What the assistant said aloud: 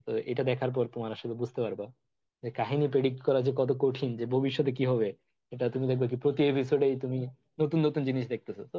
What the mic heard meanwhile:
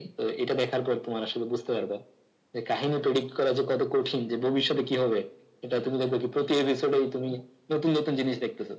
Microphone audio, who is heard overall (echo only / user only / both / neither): echo only